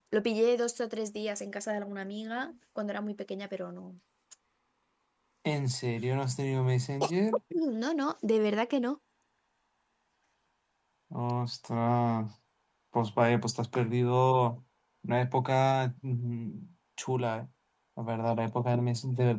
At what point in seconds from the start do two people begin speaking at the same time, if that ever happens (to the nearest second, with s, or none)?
none